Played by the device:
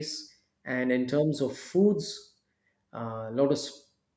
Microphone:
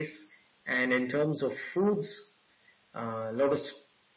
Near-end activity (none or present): none